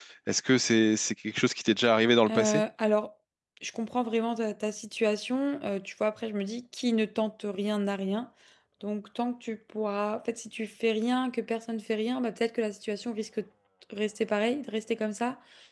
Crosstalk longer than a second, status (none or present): none